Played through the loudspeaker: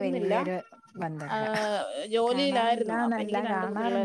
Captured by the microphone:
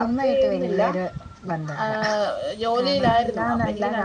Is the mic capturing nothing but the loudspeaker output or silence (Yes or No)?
Yes